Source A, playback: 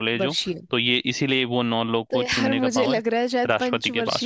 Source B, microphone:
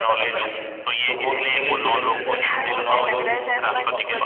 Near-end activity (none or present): present